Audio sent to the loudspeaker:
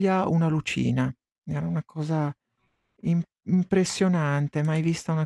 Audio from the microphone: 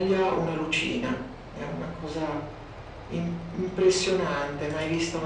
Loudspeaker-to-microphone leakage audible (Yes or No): Yes